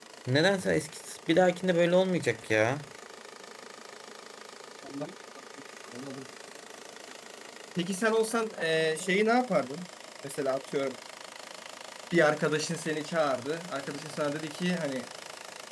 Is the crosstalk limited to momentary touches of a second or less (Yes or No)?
Yes